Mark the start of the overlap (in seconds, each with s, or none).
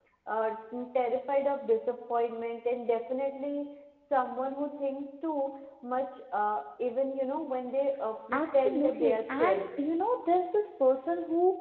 8.3 s